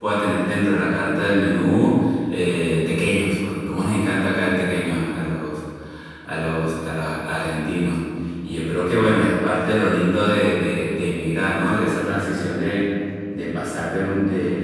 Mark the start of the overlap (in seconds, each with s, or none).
none